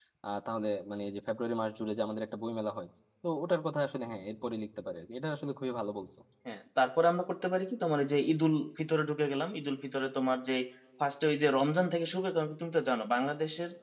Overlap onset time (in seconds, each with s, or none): none